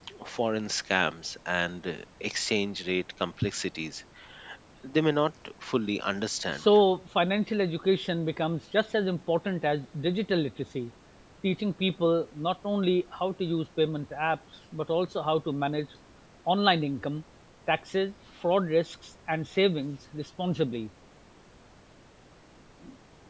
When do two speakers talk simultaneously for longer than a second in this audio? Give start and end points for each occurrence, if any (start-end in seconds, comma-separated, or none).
none